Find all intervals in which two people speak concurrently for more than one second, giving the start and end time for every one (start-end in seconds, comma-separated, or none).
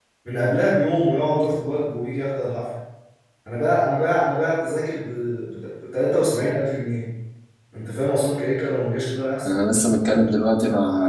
none